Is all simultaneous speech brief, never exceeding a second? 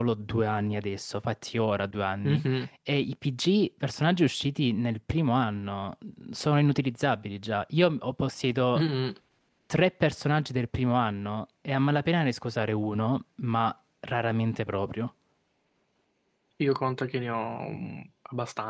Yes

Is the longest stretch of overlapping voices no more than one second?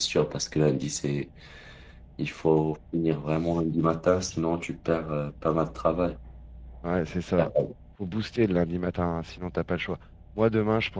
Yes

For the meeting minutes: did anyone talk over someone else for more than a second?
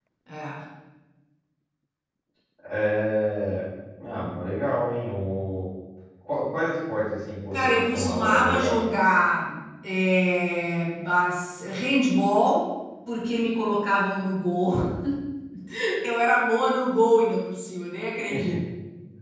Yes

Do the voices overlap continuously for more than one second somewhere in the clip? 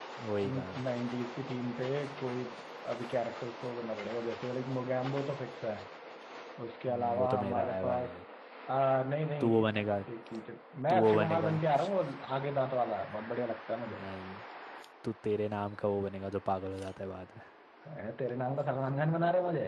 Yes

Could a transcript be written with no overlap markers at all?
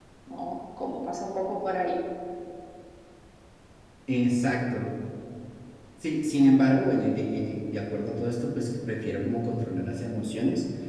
Yes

